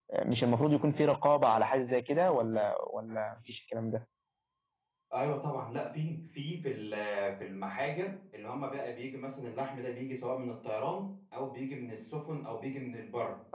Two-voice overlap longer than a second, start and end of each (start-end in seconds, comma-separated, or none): none